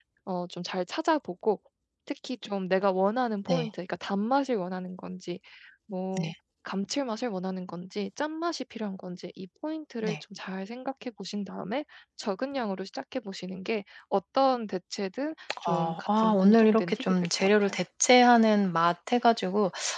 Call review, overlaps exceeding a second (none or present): present